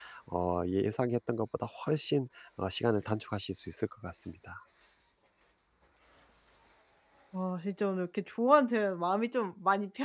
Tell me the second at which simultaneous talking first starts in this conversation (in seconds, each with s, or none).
none